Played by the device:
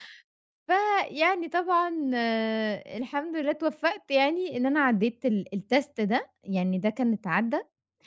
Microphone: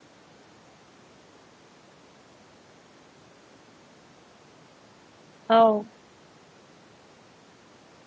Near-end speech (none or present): present